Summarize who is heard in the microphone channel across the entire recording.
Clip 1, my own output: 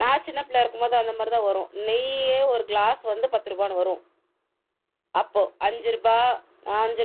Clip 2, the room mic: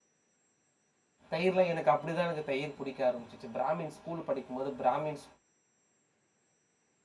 user only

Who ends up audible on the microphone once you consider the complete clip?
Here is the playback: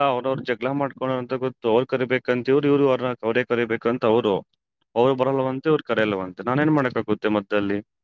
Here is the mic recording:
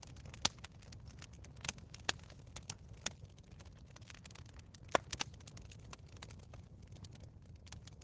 neither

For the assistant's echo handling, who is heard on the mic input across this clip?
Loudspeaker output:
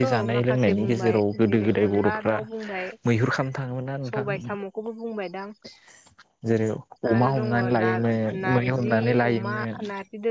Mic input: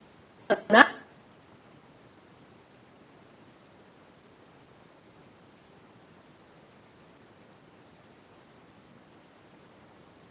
user only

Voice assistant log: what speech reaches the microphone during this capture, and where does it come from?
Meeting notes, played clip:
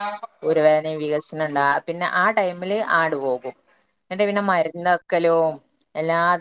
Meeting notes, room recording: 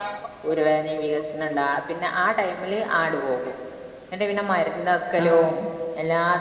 both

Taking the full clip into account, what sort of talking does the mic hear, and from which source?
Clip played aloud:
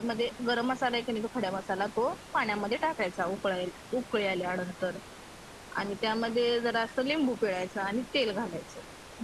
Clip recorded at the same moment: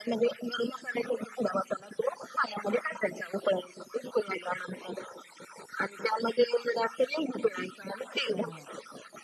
both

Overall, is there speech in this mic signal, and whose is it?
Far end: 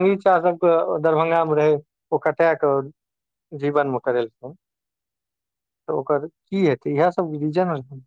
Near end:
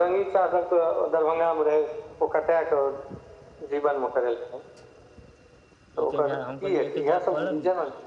both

